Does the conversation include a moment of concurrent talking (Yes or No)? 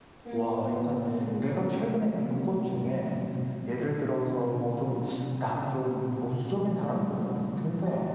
Yes